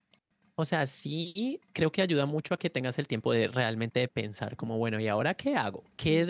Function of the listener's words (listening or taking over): listening